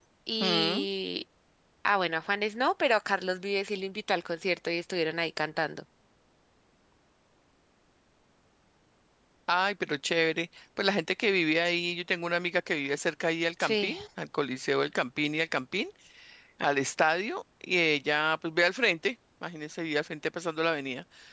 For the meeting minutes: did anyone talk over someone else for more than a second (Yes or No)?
No